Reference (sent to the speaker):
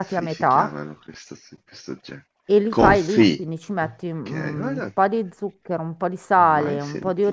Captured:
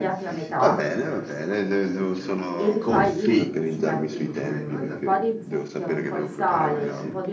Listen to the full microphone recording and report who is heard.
both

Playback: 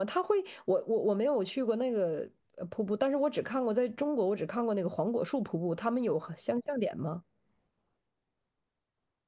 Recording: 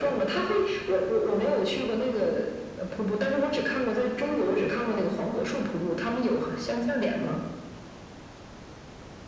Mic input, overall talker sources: echo only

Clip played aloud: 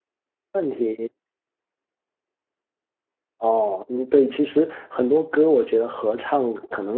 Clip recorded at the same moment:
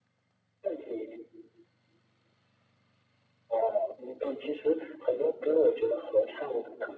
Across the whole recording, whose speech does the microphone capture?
echo only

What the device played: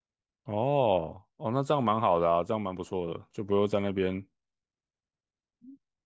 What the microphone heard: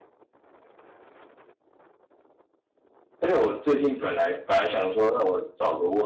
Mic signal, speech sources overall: user only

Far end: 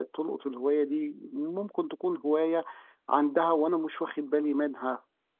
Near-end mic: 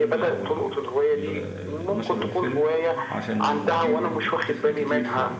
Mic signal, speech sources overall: both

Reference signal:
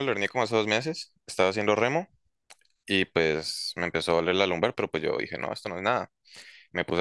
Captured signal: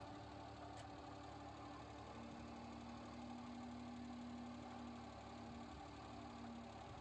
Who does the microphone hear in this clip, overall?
neither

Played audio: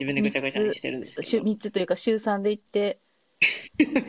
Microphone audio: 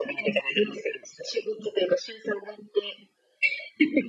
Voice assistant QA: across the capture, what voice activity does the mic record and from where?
echo only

